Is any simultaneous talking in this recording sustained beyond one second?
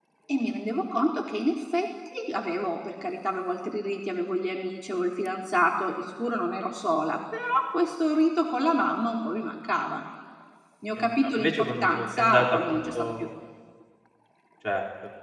Yes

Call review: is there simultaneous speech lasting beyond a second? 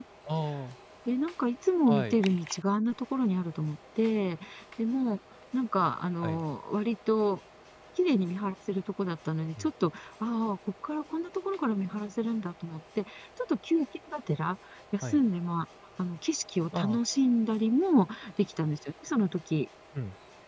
No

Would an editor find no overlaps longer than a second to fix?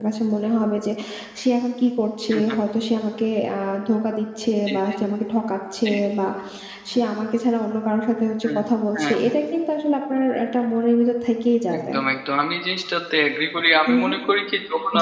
Yes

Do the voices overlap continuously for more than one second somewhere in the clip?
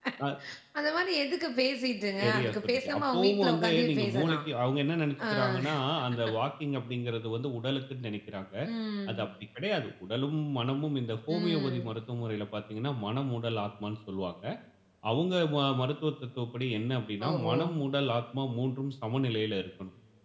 Yes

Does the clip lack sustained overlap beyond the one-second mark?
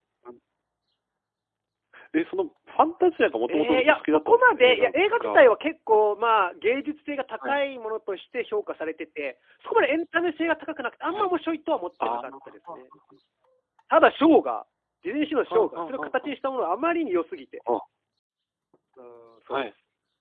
No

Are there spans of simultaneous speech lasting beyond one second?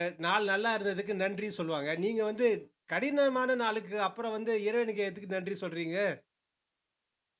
No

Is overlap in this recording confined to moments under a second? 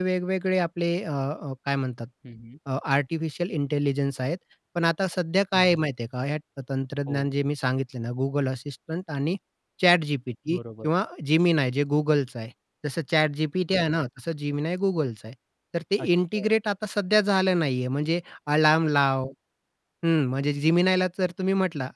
Yes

